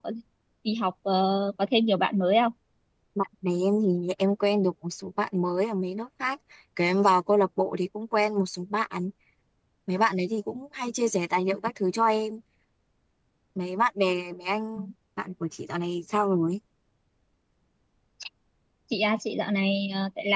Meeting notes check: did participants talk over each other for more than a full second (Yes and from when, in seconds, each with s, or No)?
No